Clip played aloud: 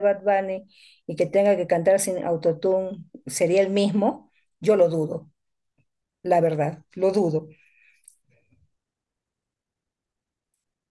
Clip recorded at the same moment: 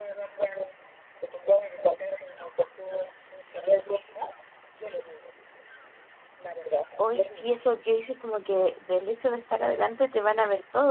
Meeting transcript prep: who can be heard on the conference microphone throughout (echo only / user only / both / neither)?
both